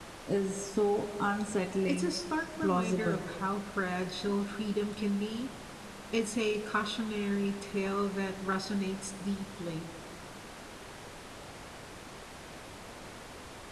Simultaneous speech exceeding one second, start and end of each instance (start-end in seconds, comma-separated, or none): none